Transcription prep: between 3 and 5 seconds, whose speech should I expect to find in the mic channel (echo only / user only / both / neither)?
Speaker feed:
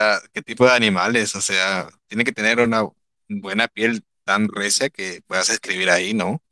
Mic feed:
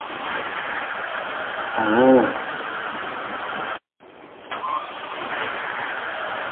neither